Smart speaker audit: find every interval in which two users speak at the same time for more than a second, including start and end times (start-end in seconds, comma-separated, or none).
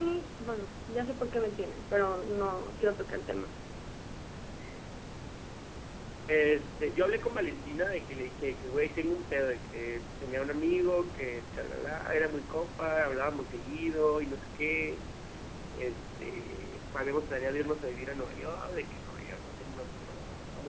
none